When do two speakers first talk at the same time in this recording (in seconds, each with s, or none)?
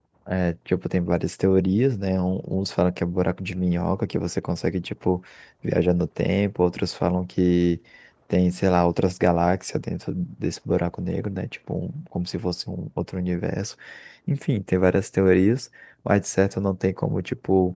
none